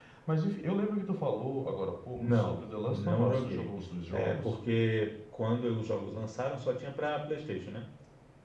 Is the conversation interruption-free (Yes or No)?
No